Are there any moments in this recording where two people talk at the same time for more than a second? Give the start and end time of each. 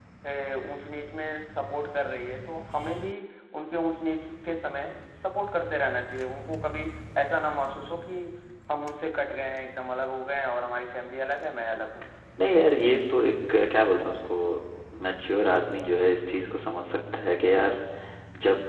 none

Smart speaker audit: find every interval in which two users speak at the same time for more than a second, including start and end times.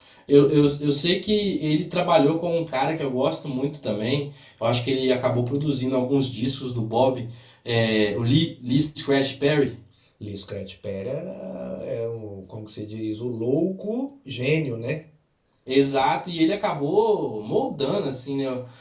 none

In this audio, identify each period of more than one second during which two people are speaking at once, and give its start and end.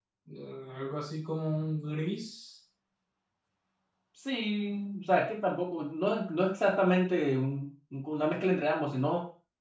none

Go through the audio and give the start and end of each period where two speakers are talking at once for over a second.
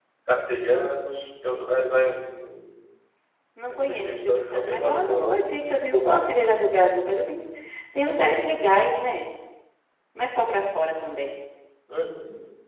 3.7-5.4

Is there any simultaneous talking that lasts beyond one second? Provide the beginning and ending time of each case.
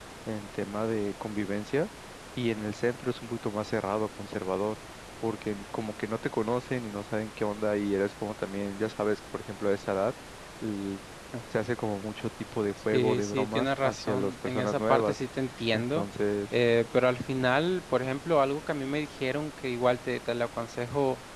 12.9-15.2

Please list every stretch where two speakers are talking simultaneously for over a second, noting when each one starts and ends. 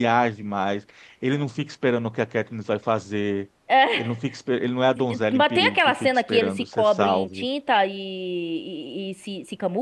5.3-7.5

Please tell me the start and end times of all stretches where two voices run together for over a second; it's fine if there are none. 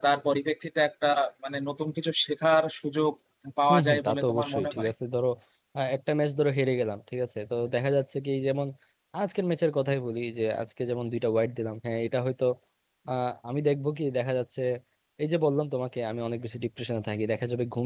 3.7-4.9

